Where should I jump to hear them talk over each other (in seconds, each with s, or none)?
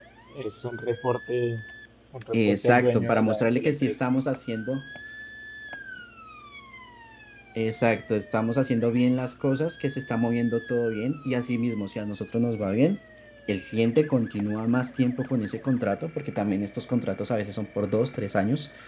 2.3 s